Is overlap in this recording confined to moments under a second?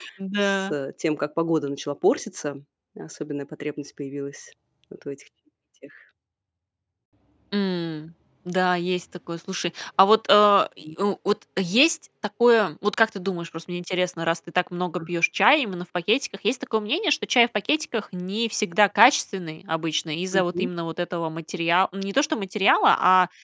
Yes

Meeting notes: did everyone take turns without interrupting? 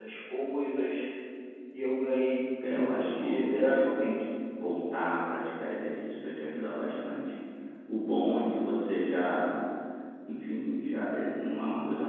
No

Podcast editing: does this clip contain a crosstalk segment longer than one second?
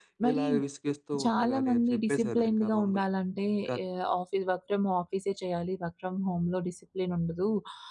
Yes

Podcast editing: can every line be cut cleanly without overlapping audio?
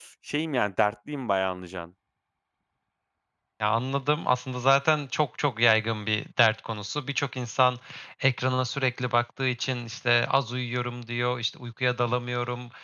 Yes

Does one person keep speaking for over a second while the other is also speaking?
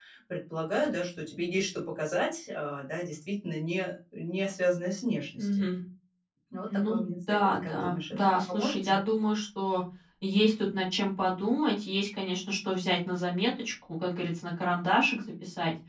Yes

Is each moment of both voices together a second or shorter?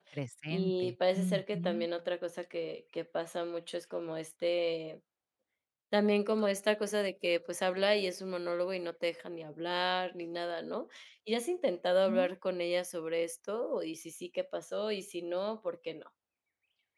No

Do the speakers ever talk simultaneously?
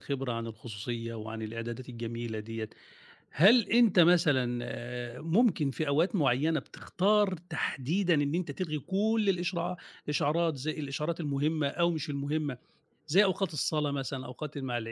No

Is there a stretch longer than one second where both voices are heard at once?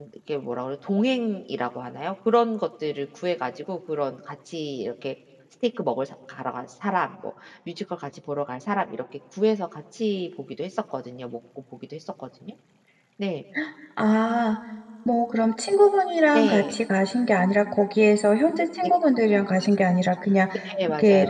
No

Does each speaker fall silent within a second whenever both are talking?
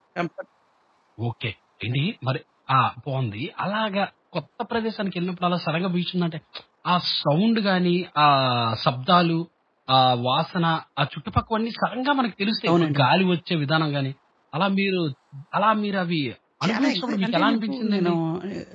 No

